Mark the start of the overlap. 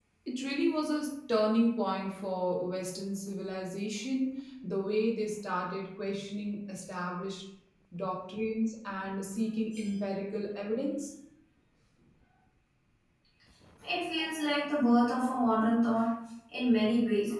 none

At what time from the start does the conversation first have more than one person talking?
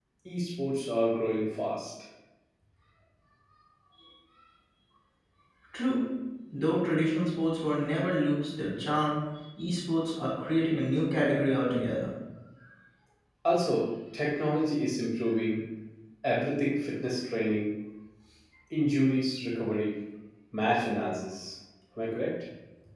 none

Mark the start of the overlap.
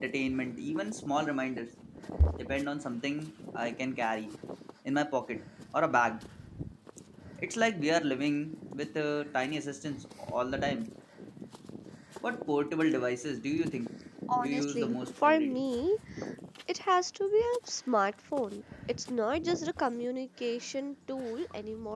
14 s

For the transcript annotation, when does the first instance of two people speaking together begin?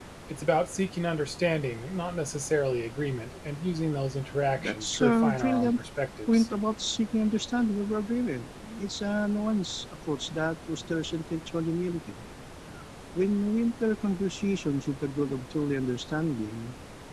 5 s

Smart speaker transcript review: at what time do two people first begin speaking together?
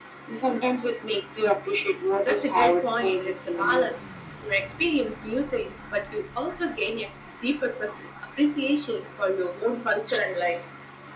2 s

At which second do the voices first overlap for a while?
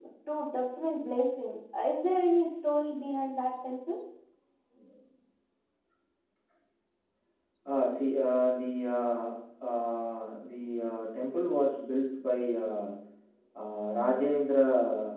none

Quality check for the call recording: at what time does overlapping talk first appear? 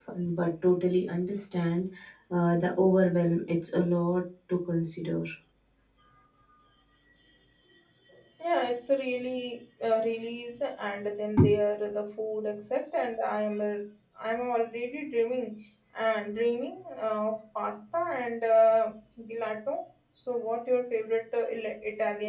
none

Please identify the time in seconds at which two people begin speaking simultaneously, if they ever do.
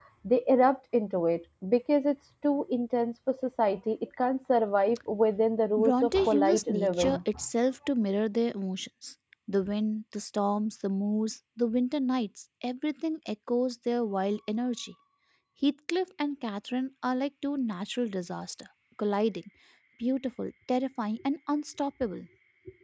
6 s

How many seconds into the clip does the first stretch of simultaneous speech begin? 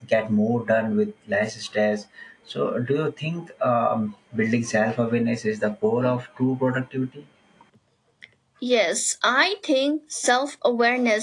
none

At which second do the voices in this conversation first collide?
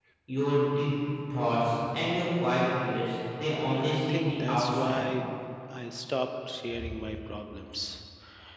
4 s

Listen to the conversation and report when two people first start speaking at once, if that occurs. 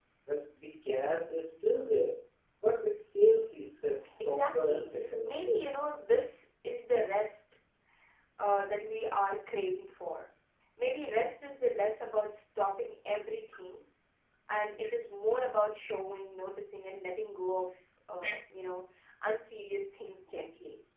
4 s

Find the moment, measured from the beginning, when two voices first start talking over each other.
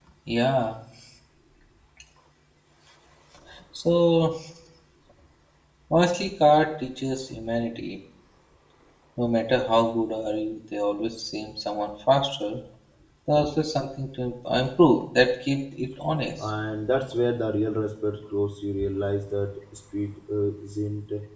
none

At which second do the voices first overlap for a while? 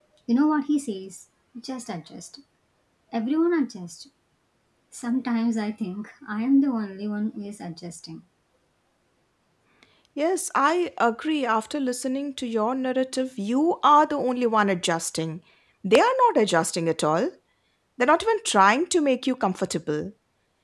none

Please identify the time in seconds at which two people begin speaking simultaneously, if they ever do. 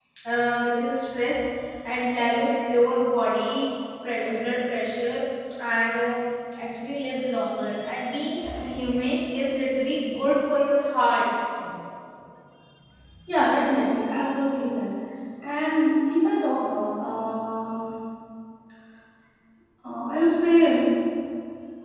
none

